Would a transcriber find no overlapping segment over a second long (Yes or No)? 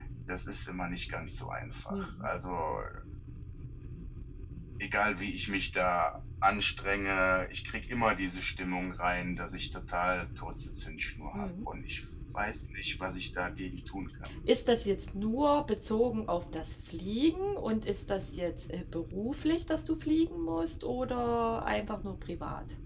Yes